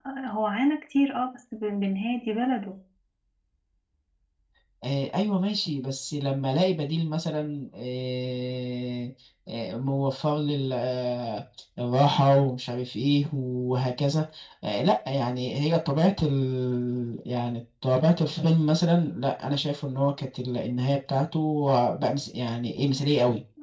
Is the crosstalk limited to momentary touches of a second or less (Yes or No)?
Yes